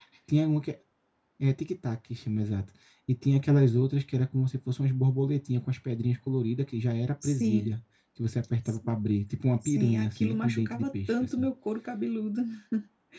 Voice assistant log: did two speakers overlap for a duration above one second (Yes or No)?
Yes